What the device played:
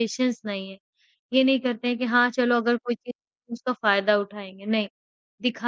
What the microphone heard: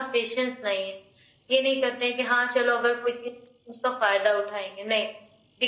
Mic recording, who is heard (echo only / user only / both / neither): echo only